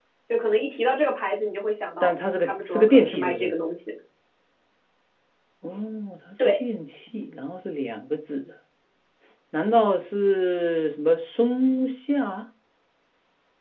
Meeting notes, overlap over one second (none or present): present